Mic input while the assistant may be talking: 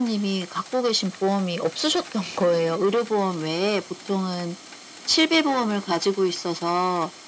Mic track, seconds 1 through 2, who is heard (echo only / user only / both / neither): echo only